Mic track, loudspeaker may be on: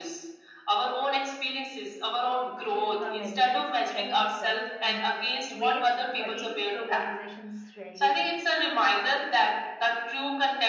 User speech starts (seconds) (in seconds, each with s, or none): 2.7 s